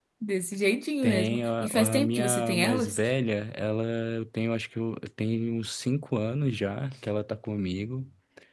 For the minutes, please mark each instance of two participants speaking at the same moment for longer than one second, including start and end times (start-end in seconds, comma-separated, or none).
1.0-3.0